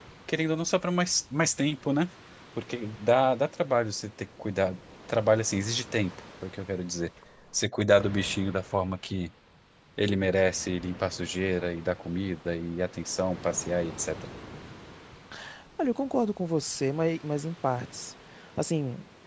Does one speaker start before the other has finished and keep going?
No

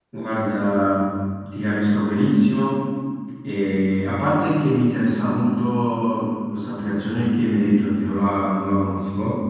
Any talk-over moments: No

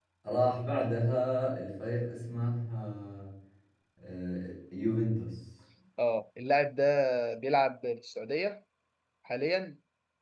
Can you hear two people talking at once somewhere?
No

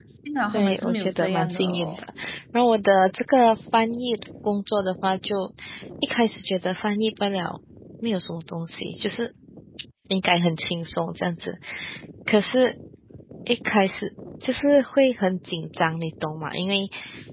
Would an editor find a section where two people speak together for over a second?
Yes, from 0.5 s

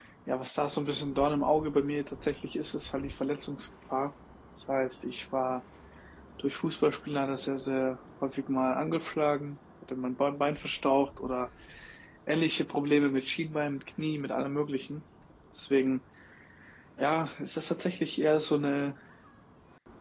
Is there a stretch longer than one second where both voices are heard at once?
No

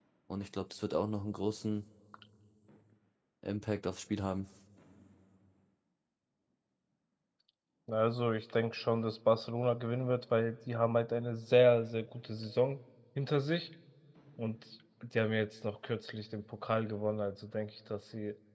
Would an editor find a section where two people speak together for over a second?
No

